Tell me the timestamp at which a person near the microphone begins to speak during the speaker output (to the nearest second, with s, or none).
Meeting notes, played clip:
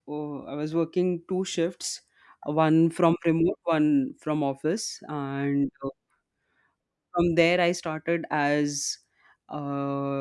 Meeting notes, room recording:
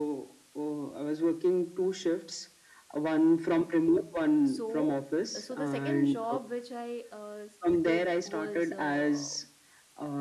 4 s